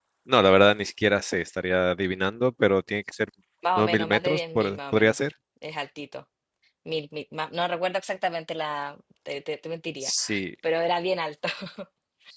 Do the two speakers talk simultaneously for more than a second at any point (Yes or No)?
Yes